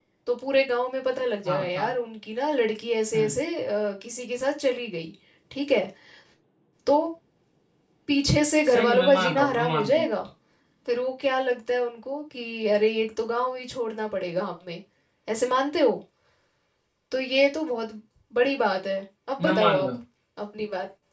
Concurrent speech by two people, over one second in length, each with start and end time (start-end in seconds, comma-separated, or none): 8.7-10.1